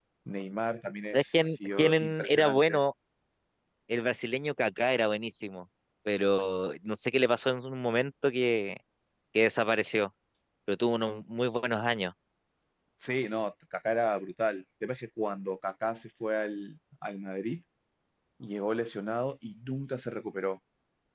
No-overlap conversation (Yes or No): No